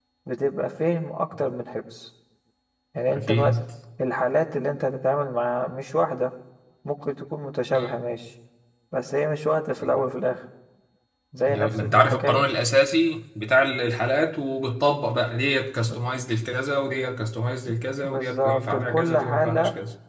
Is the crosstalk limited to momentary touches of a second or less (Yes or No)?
No